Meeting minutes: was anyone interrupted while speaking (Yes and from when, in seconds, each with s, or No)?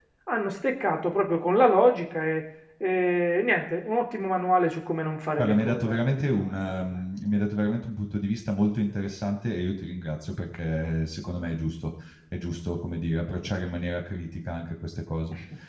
Yes, from 5.4 s